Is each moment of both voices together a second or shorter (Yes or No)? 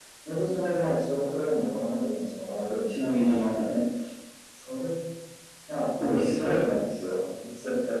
No